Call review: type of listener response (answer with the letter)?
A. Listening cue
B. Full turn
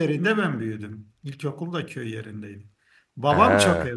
A